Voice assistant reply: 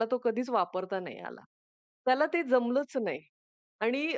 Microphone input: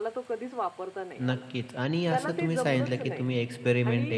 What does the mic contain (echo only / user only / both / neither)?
both